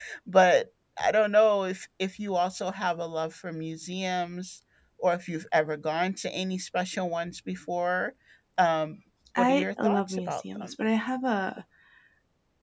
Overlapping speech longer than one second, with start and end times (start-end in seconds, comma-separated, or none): 9.4-10.7